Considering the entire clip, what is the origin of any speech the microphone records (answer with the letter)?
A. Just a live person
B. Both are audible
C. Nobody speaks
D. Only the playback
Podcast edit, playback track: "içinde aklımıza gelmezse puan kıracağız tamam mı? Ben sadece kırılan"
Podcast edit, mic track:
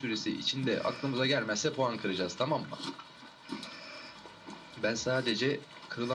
D